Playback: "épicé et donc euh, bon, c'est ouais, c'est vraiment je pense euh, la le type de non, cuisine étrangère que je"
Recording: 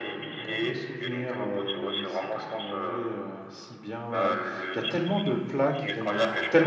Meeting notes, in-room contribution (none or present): present